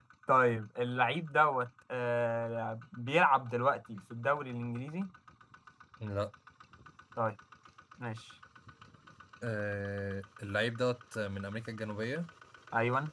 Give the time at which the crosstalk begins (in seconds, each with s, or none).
none